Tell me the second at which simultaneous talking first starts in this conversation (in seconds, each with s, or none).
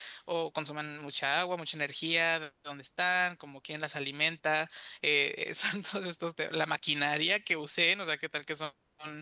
none